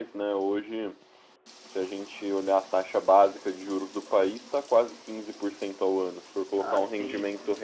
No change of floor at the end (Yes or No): No